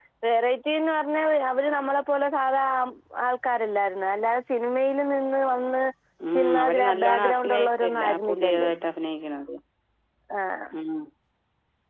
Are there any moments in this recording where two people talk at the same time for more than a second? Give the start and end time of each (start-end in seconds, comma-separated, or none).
6.3-8.7